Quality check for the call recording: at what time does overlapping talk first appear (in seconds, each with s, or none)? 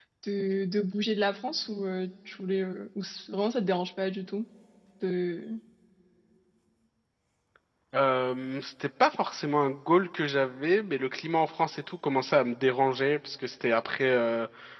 none